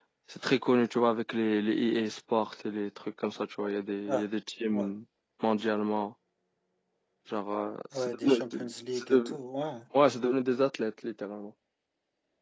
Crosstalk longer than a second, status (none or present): present